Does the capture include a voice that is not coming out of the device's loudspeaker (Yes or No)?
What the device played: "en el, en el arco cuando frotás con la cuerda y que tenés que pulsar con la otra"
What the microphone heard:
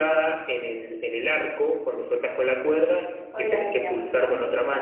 Yes